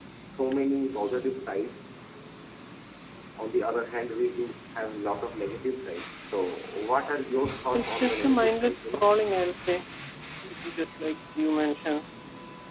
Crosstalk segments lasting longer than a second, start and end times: 7.7-9.1

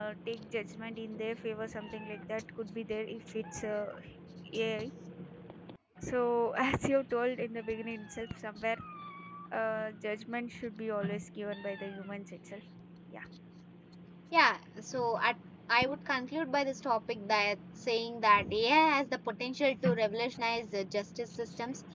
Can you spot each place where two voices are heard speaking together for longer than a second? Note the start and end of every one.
none

